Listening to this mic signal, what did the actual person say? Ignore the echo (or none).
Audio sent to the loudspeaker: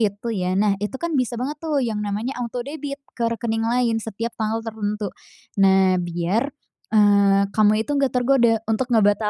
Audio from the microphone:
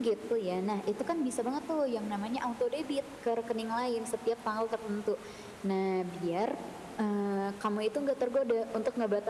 none